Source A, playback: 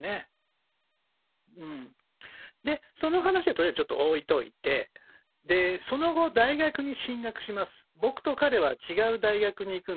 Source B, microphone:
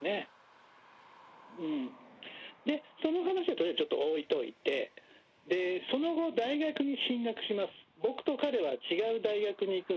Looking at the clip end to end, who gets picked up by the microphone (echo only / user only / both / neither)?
echo only